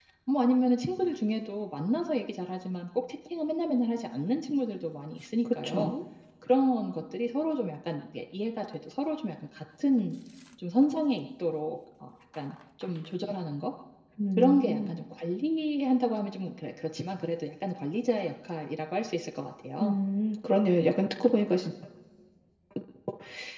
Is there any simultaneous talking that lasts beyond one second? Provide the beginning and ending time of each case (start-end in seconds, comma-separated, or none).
none